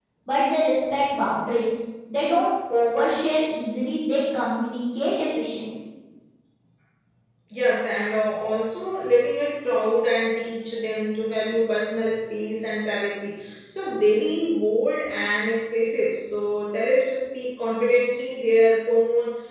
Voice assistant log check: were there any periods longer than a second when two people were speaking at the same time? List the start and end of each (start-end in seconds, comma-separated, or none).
none